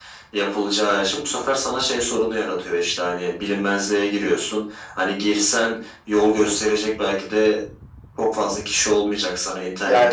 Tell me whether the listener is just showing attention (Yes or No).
Yes